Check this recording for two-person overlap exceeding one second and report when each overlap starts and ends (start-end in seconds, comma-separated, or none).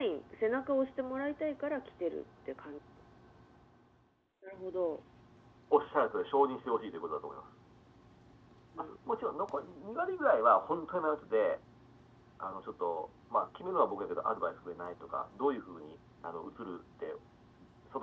none